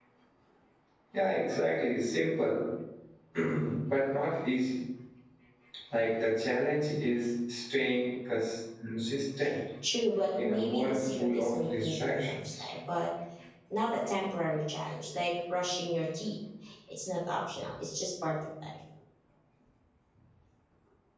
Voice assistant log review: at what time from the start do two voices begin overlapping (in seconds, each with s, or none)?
10.4 s